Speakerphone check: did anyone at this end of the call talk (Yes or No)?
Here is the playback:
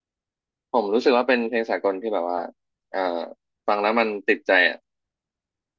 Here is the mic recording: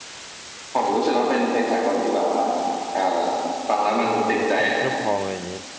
Yes